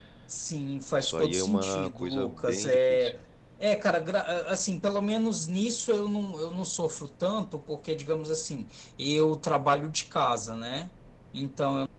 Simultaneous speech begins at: 1.0 s

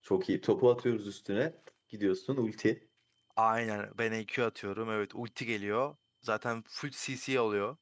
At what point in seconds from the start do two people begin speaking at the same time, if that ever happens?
none

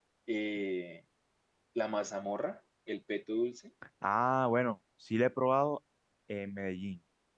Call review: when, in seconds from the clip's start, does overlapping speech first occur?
none

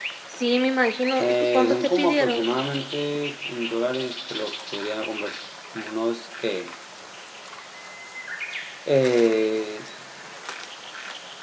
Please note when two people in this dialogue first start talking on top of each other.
1.2 s

